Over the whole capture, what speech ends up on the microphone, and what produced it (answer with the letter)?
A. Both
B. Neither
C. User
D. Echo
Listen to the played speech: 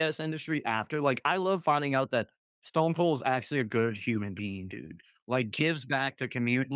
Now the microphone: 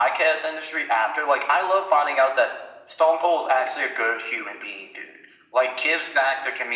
D